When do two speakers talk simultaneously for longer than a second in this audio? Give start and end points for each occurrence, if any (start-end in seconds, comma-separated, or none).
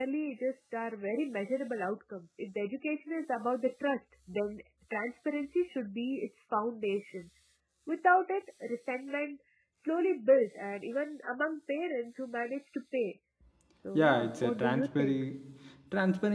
13.9-15.2